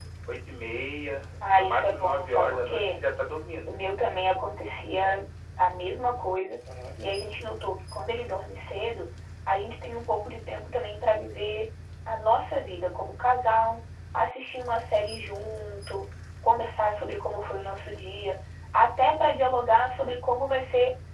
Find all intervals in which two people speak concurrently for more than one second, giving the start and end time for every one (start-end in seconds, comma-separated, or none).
1.4-3.0